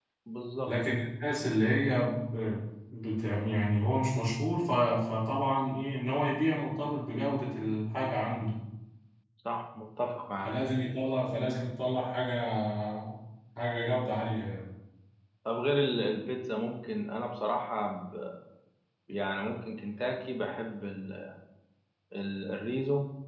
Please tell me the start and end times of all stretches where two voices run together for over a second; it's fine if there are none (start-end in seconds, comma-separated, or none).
none